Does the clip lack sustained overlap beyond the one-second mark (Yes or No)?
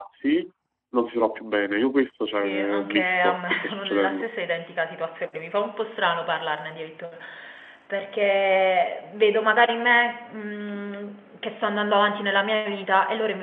No